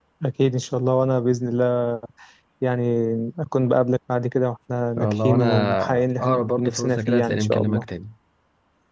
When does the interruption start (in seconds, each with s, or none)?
5.0 s